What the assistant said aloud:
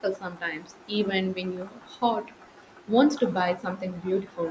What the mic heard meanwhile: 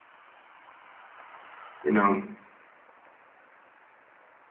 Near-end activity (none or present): present